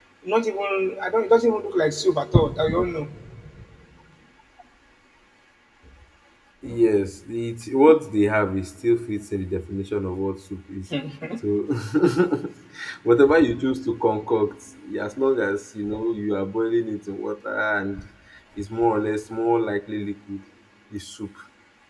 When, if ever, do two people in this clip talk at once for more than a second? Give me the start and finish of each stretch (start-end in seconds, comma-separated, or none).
none